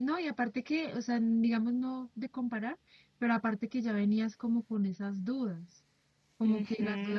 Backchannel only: Yes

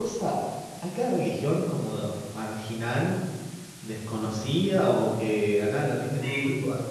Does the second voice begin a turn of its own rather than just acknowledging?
No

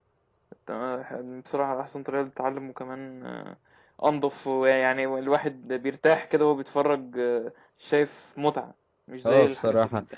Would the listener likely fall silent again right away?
No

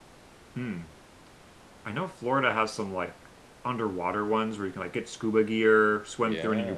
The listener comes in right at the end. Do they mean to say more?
No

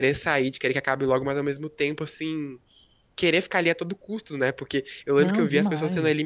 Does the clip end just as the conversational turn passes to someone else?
No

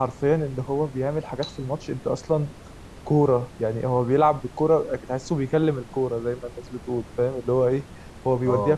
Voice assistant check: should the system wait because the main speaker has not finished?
Yes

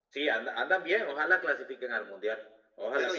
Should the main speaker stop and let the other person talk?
Yes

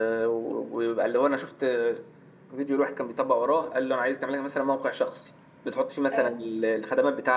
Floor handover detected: No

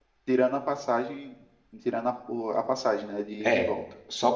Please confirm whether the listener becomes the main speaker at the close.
Yes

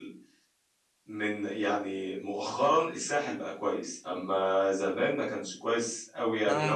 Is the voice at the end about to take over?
Yes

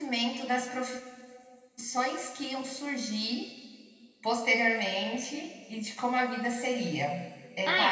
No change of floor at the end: No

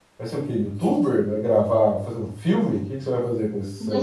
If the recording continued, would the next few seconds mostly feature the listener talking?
Yes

